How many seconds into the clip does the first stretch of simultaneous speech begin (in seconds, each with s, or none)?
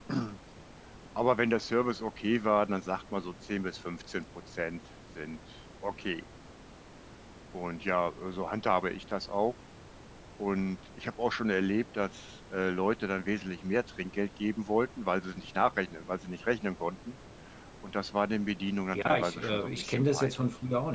18.9 s